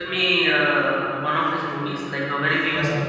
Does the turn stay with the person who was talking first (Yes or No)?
No